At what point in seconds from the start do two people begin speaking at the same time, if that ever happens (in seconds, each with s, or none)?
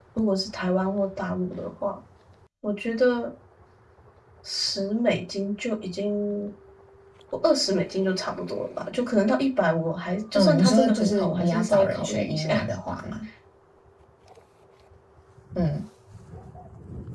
10.3 s